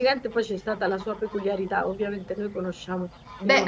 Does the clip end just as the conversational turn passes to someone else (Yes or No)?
Yes